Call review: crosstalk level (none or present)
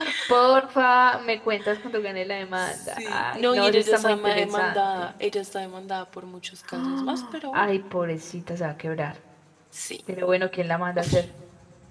present